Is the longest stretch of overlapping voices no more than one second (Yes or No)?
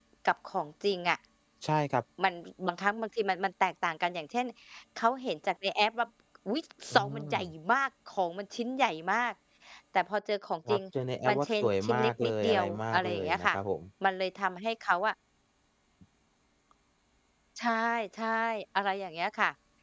No